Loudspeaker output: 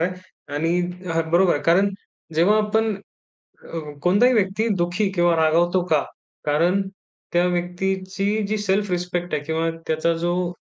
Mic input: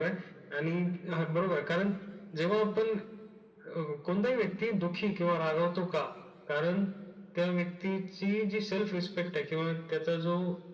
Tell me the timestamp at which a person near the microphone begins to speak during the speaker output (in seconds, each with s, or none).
none